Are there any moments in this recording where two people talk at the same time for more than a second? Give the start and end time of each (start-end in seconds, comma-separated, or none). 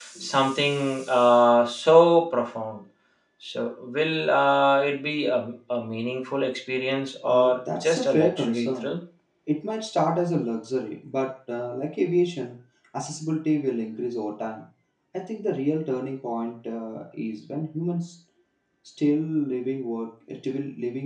7.2-8.9